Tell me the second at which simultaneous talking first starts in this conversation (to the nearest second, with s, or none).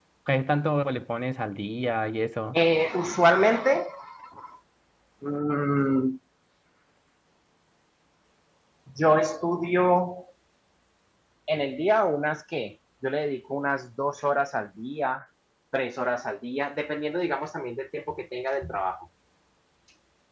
none